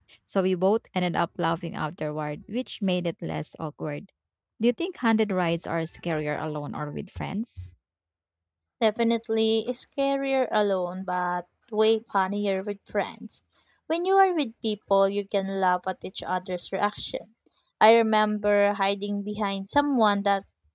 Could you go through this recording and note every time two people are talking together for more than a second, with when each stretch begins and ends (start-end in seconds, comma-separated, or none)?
none